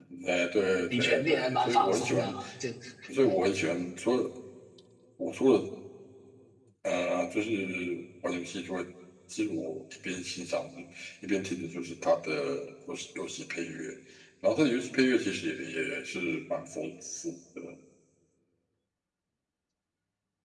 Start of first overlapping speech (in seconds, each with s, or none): 0.9 s